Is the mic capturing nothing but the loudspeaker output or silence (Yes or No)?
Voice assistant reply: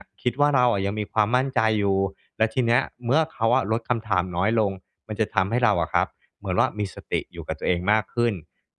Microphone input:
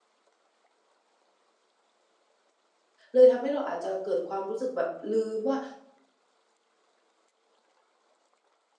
No